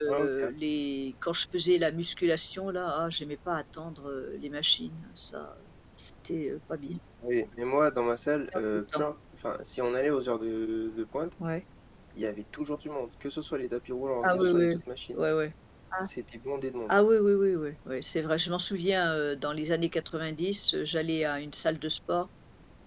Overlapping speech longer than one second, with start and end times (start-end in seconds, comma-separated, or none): none